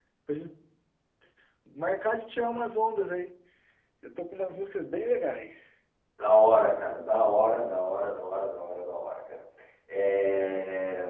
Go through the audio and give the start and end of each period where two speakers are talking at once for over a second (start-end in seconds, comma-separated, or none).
none